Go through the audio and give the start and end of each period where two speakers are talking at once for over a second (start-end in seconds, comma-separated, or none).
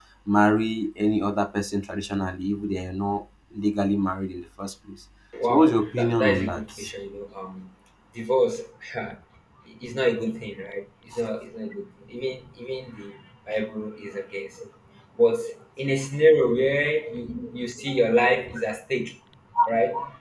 5.4-6.7